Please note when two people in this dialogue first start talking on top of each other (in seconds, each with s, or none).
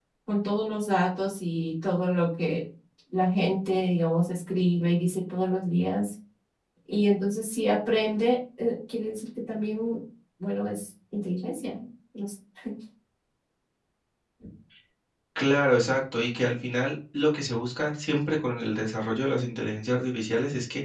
none